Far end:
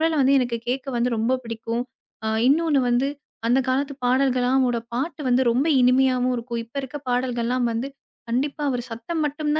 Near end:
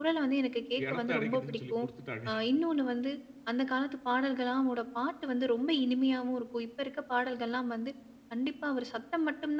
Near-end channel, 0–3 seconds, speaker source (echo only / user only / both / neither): both